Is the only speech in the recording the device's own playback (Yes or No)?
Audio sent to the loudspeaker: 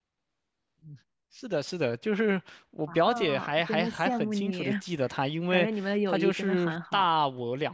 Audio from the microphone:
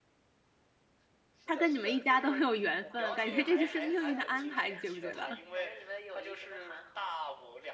No